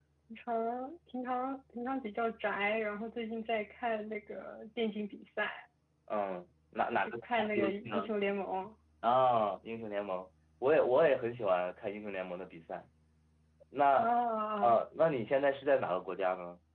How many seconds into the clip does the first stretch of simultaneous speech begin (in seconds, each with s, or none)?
6.9 s